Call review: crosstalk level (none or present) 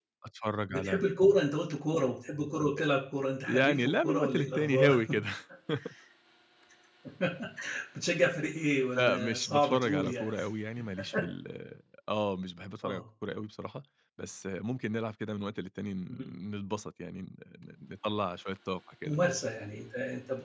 present